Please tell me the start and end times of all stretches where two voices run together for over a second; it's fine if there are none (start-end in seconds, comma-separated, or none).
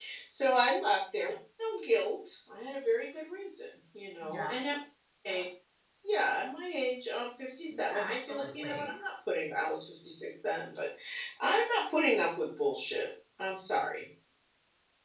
7.7-8.9